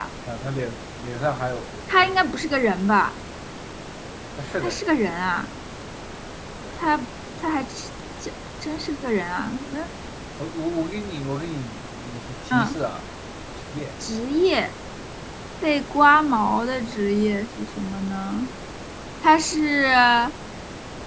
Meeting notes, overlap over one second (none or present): none